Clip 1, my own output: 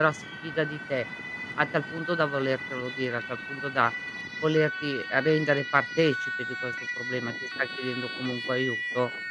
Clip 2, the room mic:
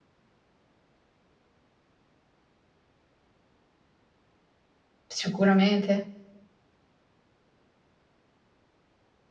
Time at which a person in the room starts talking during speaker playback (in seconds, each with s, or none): 5.2 s